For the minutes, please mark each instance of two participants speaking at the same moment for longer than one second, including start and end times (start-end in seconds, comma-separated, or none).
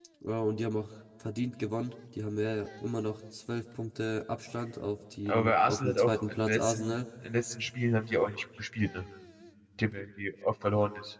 5.3-6.8